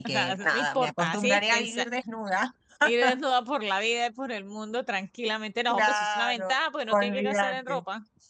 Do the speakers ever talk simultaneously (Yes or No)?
Yes